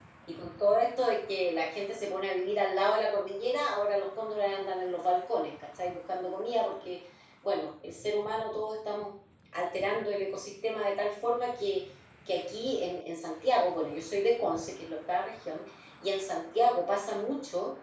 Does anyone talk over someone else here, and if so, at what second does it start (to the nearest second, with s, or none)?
none